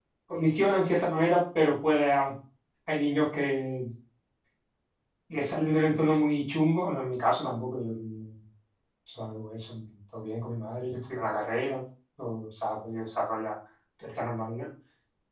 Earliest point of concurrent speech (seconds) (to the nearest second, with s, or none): none